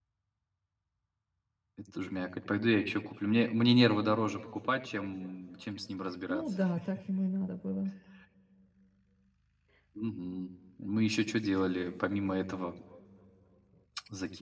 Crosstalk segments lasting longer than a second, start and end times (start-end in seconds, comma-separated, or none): none